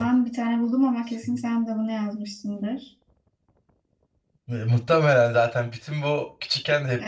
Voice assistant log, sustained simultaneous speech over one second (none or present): none